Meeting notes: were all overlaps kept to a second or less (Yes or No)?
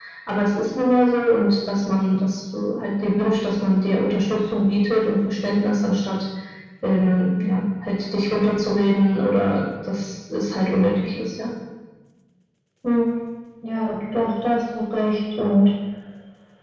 Yes